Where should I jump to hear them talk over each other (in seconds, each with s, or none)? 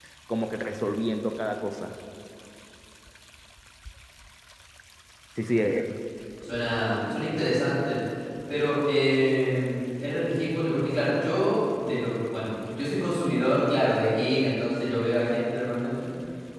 none